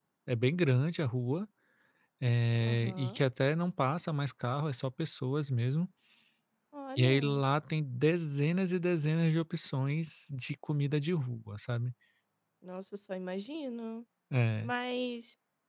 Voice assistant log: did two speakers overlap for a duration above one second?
No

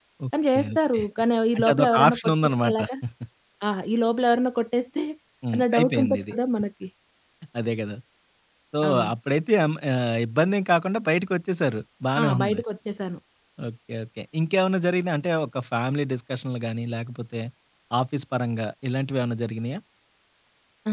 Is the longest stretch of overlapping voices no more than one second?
No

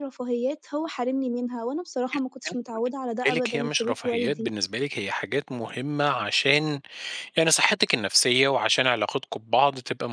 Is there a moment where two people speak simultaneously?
Yes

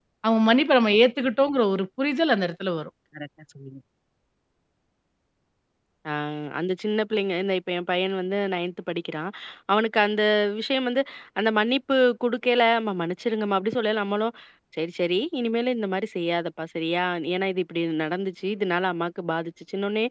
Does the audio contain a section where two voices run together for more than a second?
No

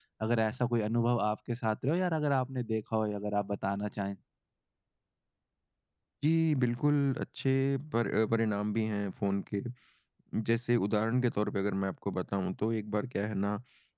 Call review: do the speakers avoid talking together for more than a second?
Yes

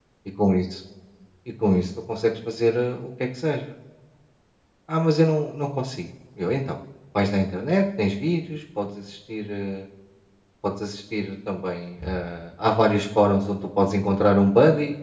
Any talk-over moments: No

